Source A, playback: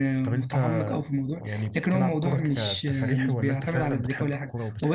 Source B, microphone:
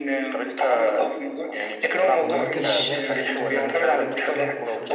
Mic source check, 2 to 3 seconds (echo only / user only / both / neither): both